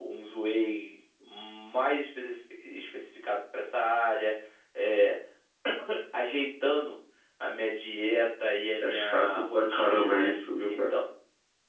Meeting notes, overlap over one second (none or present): present